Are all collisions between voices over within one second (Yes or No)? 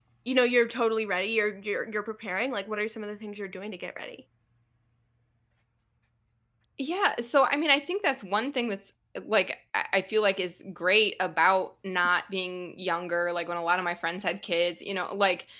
Yes